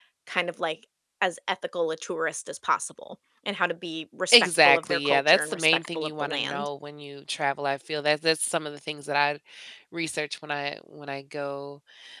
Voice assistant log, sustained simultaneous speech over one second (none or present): present